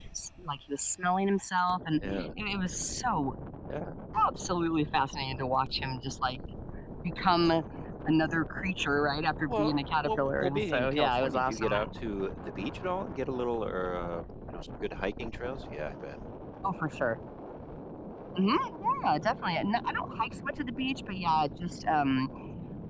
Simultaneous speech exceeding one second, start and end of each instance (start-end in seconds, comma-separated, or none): 9.5-12.0